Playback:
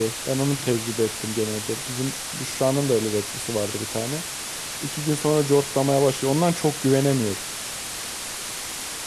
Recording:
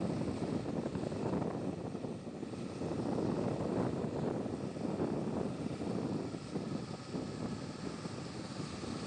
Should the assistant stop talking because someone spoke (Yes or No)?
No